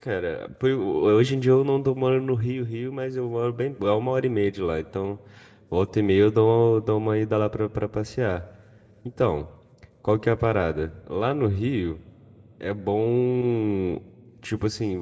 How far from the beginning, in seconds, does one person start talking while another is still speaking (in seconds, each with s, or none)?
none